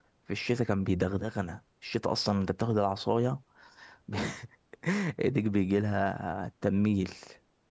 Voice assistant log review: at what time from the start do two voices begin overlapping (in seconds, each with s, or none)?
none